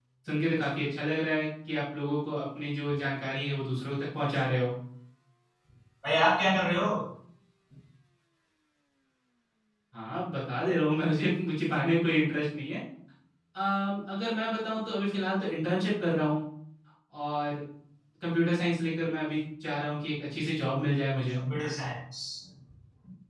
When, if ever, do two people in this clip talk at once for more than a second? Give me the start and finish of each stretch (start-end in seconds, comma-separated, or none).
none